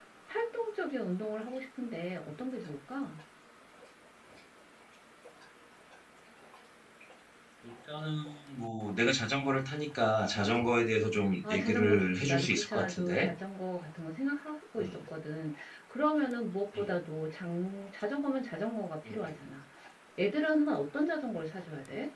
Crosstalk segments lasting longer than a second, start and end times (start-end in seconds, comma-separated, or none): 11.4-13.3